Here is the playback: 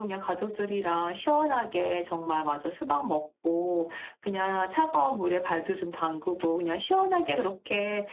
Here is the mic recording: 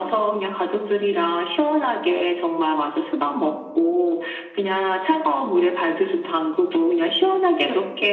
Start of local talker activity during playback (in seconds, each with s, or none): none